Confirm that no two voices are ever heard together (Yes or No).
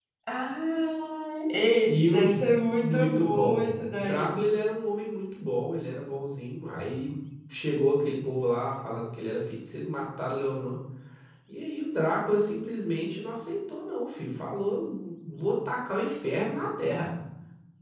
No